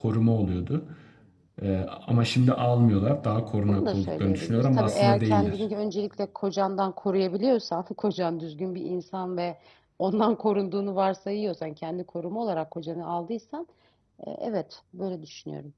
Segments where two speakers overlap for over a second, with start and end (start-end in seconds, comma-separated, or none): 3.6-5.6